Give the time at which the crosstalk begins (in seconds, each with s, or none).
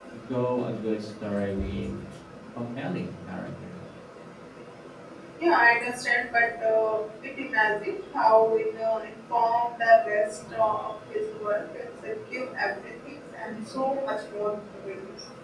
none